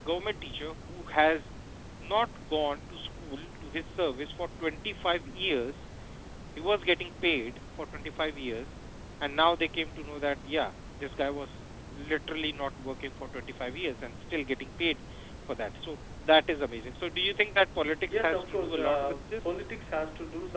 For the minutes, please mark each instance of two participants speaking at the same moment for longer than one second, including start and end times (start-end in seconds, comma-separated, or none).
18.1-19.5